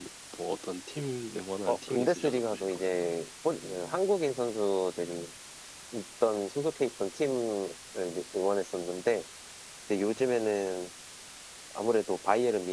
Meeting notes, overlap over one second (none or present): present